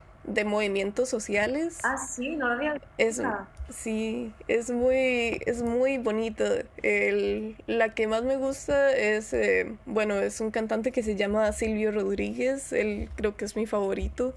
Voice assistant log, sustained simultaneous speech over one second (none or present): none